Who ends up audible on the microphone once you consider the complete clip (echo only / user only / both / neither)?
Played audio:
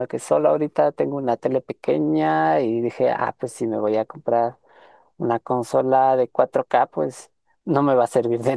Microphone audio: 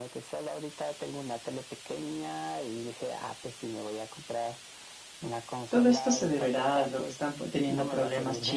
both